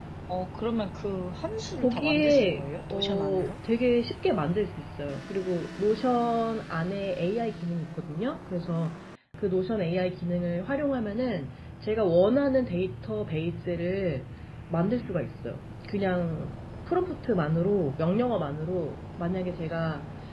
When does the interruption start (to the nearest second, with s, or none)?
2 s